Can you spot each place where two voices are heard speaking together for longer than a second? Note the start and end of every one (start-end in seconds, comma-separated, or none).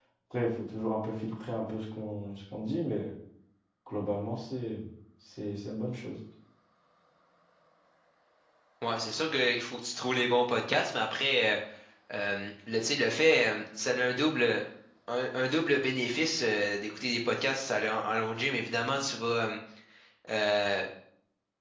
none